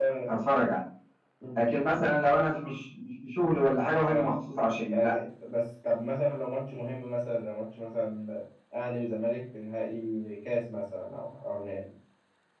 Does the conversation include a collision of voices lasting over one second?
No

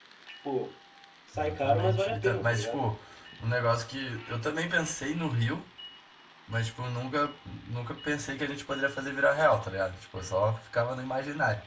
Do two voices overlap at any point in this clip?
Yes, from 1.4 s

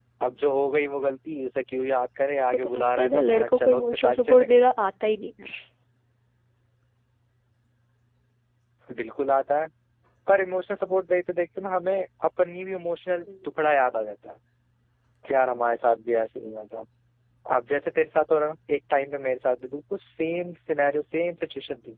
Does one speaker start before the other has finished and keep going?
Yes, from 2.5 s

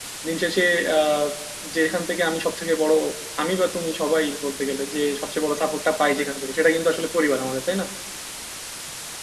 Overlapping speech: No

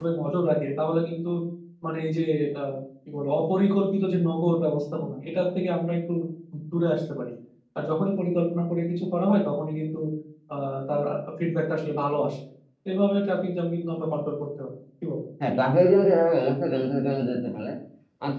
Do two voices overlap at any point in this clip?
No

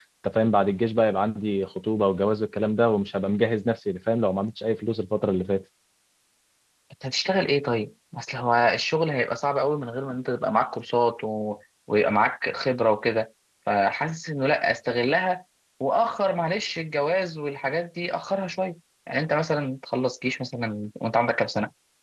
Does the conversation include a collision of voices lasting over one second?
No

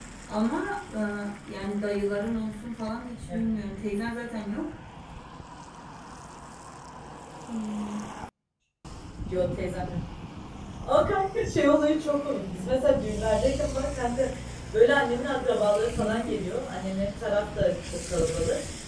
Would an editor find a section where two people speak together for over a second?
No

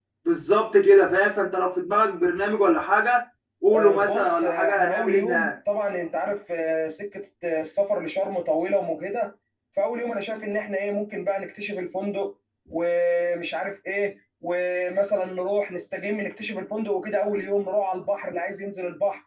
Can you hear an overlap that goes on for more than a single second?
Yes, from 3.7 s

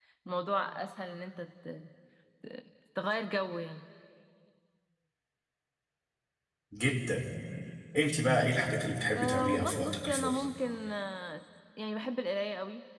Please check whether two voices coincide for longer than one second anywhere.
Yes, from 9.1 s

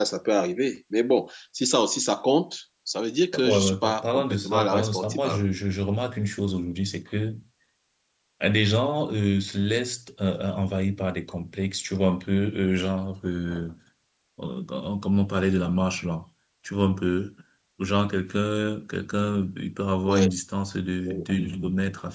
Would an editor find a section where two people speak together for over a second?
Yes, from 3.3 s

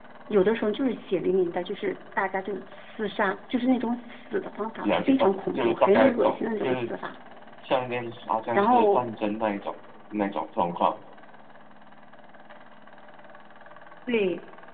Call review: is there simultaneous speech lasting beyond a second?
Yes, from 4.8 s

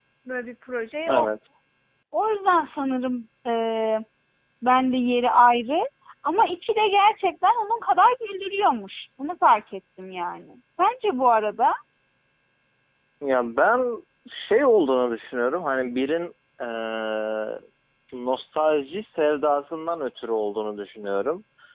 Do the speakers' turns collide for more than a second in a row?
No

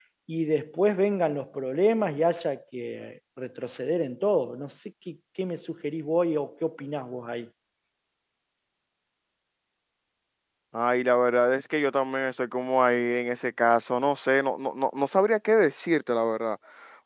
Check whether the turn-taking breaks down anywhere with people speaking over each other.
No

